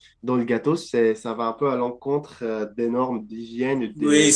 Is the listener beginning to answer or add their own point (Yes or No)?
Yes